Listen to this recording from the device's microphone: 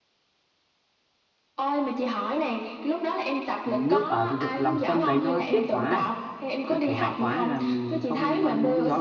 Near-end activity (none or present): present